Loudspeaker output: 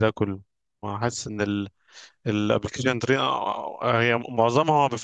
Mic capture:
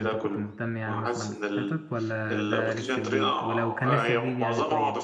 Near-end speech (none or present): present